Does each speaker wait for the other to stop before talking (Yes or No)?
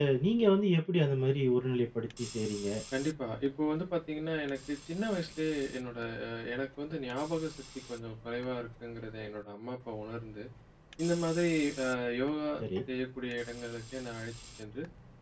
Yes